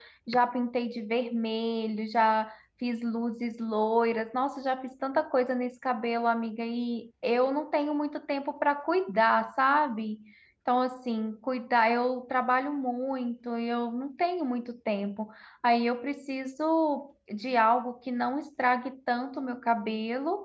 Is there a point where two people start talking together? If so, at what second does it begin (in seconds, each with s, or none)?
none